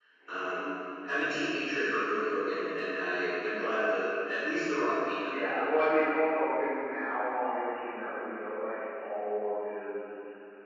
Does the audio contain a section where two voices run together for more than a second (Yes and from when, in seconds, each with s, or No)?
No